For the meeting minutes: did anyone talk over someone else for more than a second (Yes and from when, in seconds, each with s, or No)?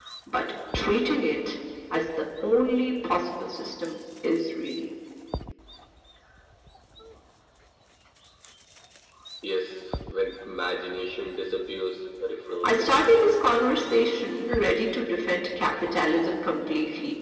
Yes, from 12.6 s